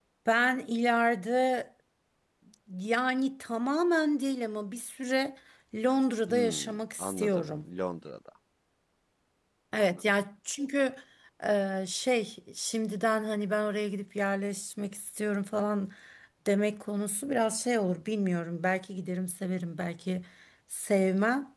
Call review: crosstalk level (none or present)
present